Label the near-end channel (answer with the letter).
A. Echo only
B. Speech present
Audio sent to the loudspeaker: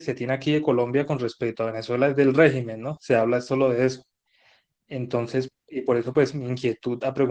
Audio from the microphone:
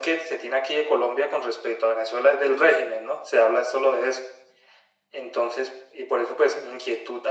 A